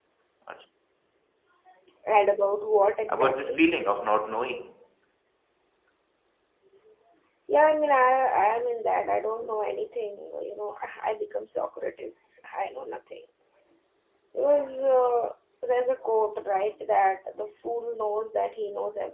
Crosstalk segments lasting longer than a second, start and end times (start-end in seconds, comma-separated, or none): none